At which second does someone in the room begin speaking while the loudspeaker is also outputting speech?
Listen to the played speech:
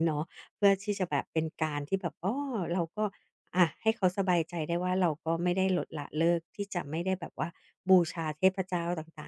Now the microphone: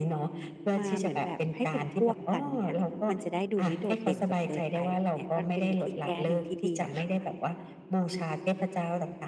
0.8 s

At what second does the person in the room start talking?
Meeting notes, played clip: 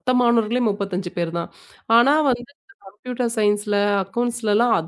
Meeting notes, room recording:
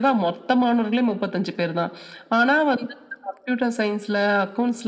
none

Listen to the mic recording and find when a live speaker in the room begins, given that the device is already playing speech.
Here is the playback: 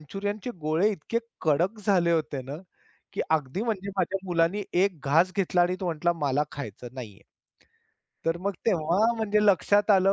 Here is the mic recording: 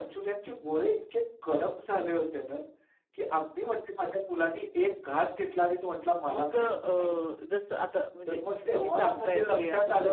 6.3 s

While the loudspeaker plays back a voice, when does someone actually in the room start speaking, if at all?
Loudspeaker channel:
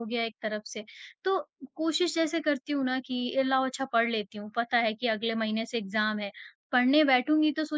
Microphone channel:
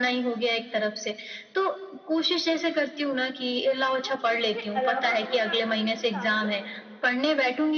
4.0 s

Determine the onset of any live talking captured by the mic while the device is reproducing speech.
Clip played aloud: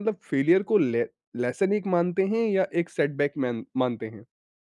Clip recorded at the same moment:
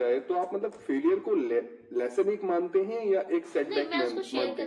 3.6 s

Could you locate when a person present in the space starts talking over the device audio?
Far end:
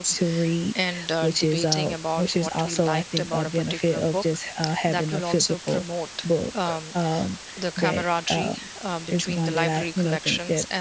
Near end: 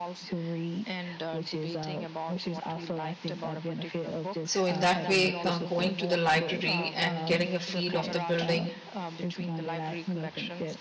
4.4 s

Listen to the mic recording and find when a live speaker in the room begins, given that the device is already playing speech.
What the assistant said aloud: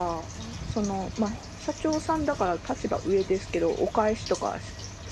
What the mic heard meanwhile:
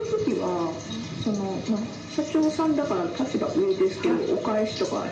4.0 s

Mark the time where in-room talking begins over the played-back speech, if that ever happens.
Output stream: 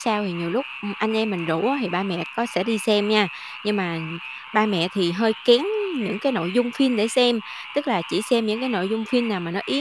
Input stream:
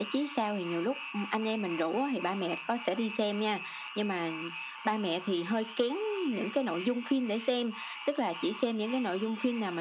none

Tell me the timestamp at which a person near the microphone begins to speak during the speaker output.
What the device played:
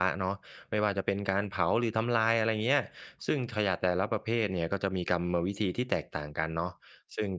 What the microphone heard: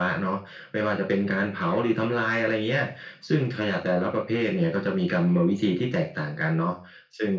none

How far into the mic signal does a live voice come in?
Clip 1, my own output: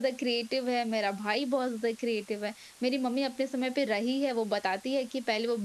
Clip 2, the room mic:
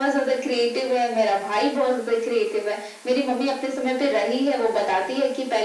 none

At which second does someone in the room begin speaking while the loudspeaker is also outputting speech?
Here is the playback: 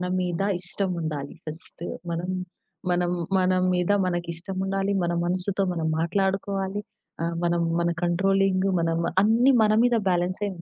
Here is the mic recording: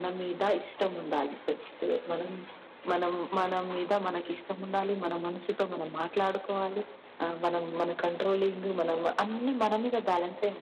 none

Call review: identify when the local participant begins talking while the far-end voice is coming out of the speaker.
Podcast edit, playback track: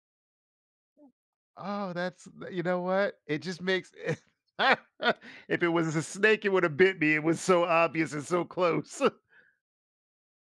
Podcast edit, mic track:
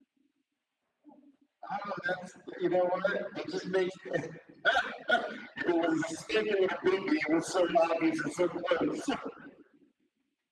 none

